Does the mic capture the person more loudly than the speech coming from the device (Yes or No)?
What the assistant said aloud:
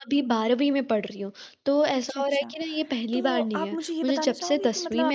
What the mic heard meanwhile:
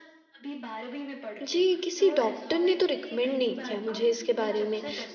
Yes